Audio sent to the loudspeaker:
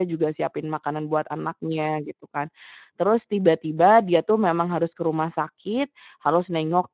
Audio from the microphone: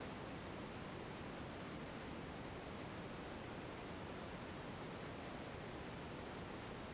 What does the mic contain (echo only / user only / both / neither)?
neither